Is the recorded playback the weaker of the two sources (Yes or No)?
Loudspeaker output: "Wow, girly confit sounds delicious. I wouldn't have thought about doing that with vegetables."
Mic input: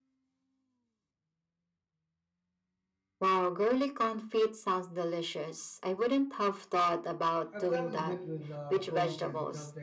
No